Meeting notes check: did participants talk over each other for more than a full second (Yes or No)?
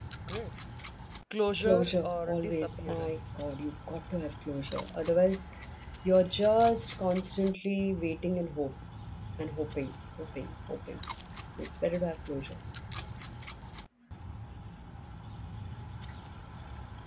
Yes